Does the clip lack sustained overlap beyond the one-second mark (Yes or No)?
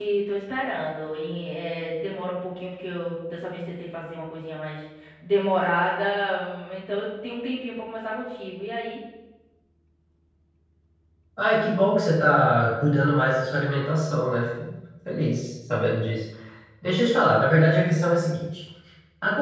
Yes